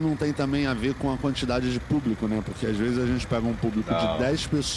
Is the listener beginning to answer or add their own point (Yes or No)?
No